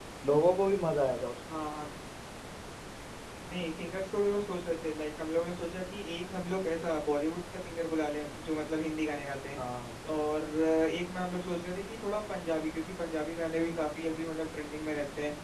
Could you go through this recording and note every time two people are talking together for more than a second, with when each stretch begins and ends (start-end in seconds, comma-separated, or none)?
none